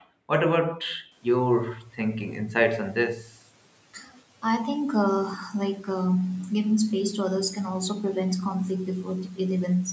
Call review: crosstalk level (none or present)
none